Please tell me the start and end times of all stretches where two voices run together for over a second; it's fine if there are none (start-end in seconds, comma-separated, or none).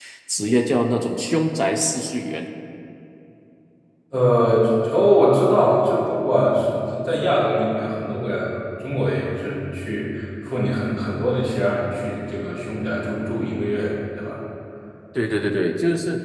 none